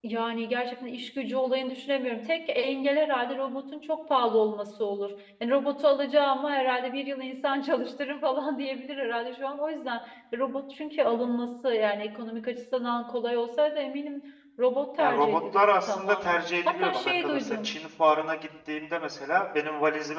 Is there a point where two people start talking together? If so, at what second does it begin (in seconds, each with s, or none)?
15.0 s